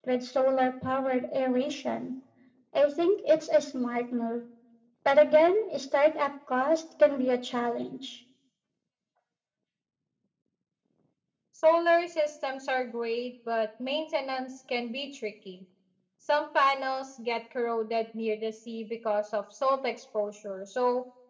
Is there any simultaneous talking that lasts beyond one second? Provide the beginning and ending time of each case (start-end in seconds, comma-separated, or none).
none